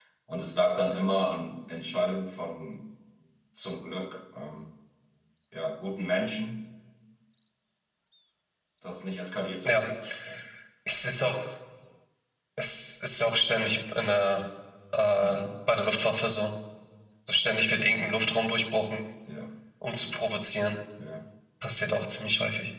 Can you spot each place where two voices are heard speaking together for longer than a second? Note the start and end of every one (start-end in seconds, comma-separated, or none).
none